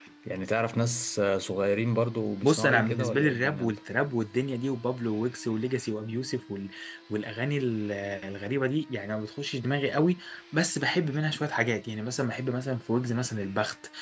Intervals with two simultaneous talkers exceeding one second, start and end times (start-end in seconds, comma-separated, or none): 2.4-3.8